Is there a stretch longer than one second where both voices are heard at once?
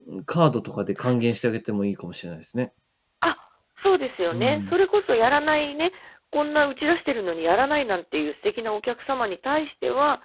No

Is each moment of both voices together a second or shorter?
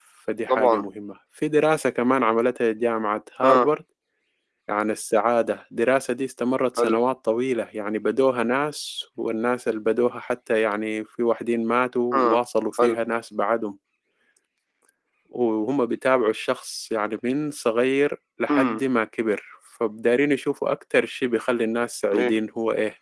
Yes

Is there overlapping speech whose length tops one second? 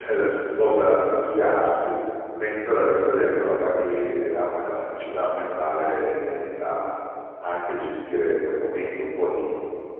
No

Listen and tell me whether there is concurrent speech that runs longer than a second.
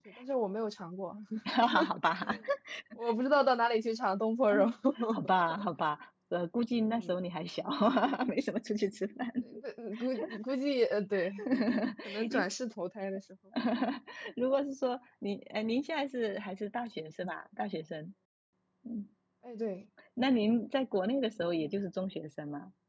No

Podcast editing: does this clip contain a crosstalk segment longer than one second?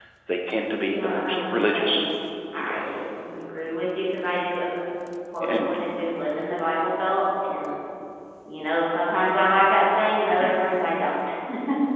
Yes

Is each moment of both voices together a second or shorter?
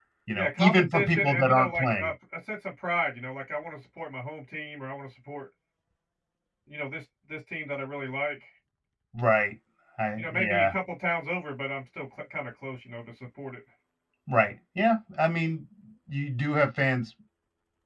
No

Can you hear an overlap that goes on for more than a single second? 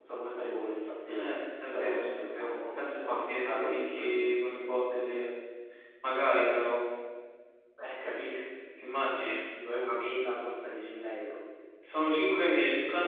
Yes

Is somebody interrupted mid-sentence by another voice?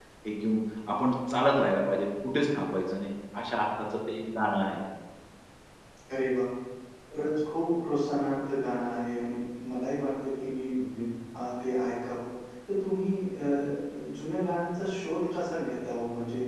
No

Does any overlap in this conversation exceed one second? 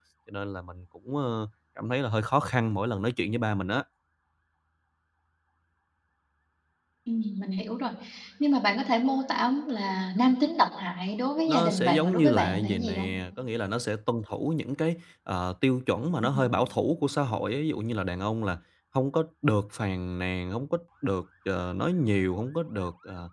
Yes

